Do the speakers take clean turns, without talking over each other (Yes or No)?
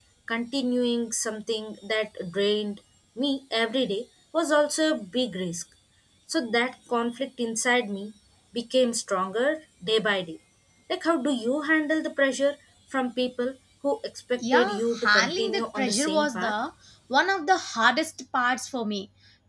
No